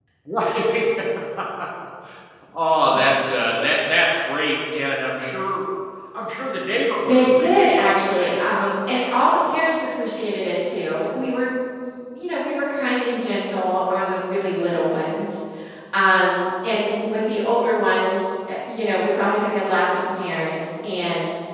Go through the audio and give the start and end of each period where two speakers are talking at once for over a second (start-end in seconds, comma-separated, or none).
7.0-8.3